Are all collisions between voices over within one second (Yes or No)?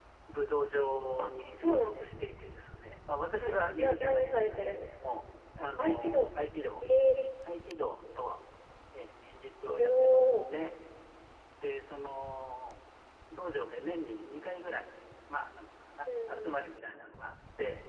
No